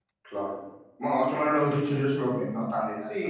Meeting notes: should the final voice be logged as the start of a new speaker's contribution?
Yes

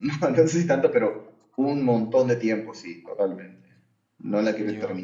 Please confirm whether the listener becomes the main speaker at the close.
No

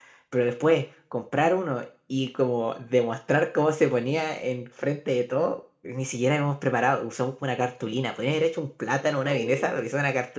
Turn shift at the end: No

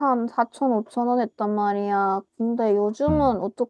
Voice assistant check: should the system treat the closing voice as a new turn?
No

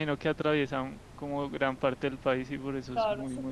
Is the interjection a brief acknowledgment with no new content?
No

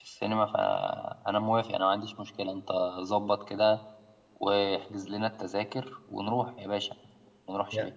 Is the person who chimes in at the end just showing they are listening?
No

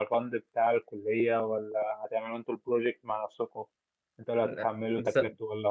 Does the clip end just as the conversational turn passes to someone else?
No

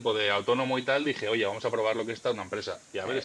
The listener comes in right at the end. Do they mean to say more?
No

